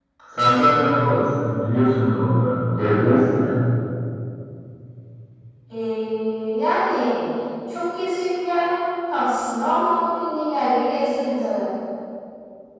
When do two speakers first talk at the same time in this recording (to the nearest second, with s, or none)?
none